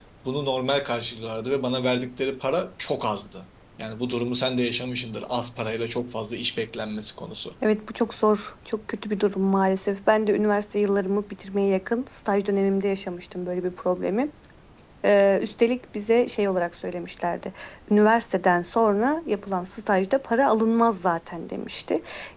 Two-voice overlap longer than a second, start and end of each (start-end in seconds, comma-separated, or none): none